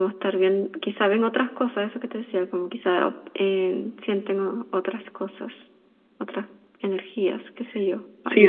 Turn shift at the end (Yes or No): Yes